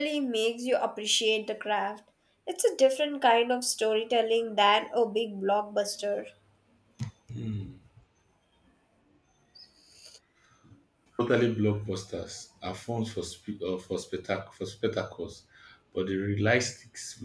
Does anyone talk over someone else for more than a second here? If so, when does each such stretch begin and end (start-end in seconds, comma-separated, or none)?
none